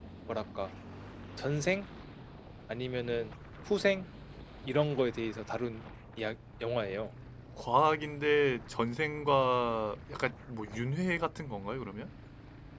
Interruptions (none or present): none